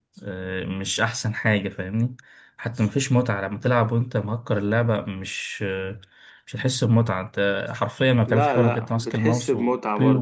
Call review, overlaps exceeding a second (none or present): present